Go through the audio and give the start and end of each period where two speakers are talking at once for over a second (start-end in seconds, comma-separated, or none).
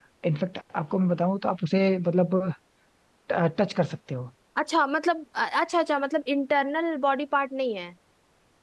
none